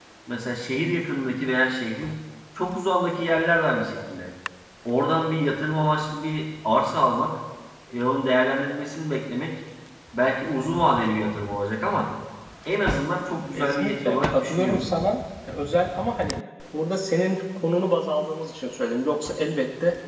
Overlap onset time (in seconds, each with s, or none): 13.5 s